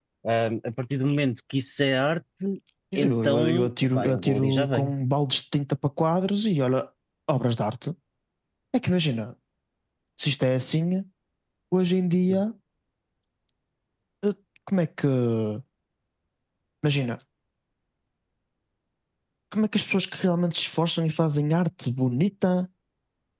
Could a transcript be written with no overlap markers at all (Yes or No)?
No